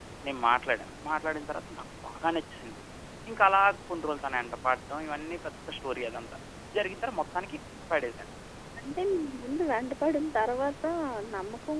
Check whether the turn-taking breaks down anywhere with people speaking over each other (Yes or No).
No